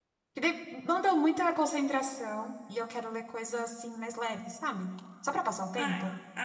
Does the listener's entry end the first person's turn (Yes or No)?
Yes